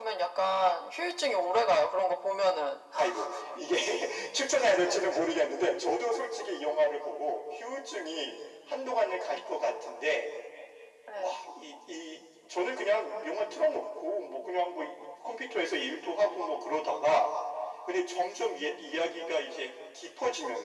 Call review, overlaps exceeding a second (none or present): none